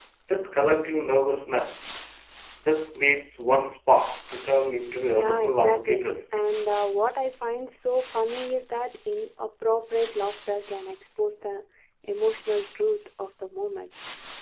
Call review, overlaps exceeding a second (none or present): present